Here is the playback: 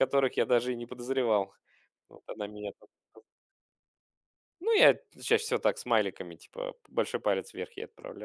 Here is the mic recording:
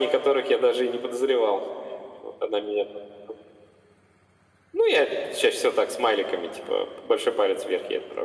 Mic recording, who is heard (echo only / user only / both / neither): echo only